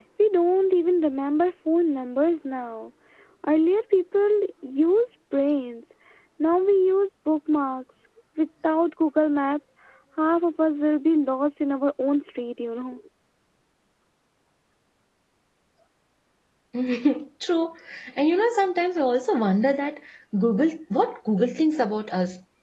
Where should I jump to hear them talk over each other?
none

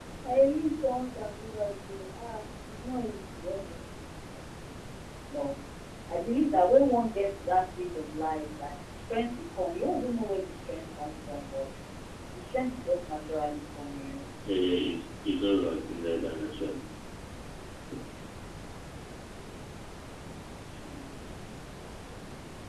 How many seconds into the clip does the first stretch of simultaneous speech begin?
none

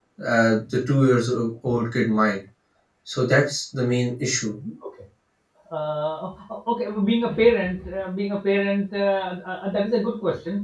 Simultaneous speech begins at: none

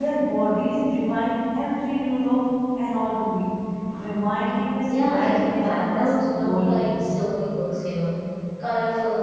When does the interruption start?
4.9 s

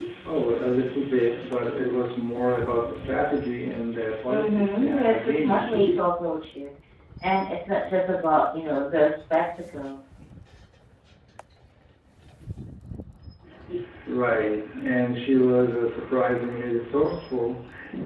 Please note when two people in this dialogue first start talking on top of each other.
4.3 s

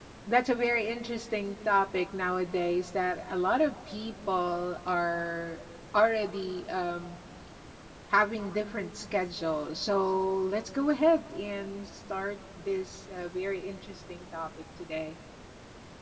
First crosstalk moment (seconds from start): none

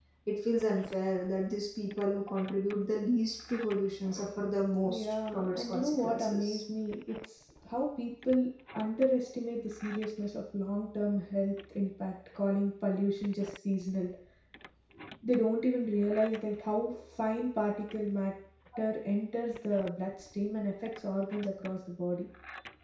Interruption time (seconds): 4.8 s

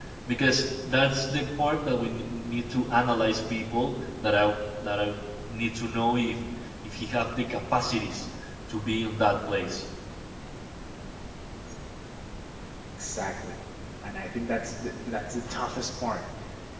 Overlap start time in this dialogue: none

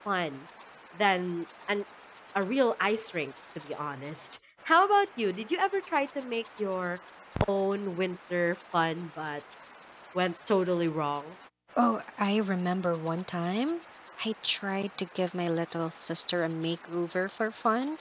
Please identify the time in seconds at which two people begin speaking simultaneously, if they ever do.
none

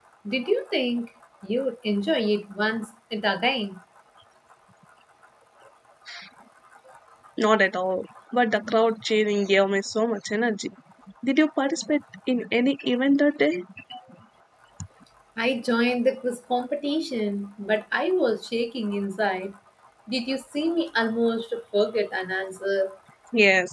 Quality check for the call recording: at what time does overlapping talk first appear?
none

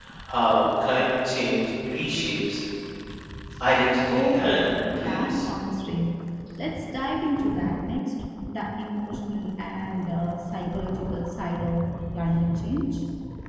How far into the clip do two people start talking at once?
4.1 s

